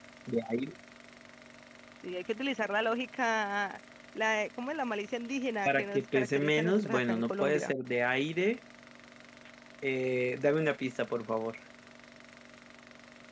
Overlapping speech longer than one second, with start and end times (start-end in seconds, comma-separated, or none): 5.6-7.7